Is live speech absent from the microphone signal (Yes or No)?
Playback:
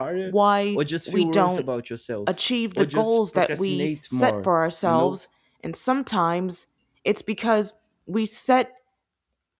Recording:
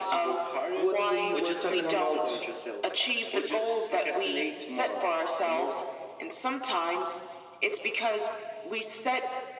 No